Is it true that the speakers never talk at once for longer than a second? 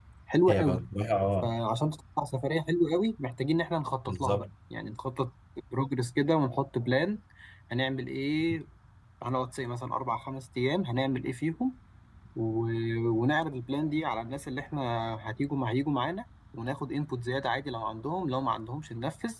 Yes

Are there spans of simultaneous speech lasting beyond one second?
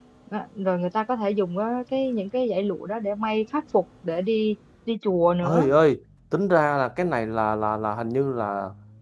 No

